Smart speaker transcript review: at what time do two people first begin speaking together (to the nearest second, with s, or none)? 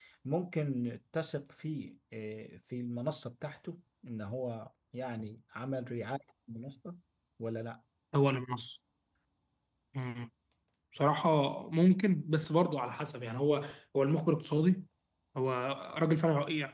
none